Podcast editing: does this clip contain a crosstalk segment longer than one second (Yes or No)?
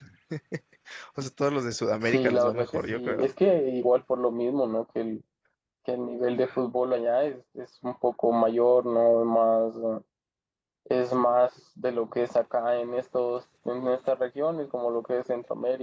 Yes